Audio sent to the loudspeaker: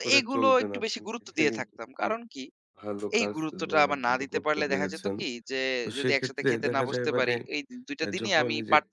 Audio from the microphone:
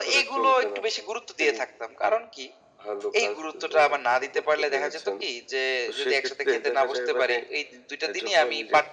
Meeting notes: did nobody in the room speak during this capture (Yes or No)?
Yes